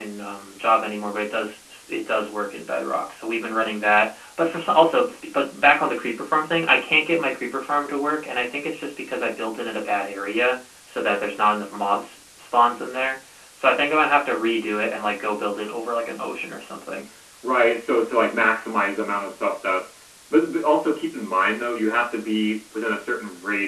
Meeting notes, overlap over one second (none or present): none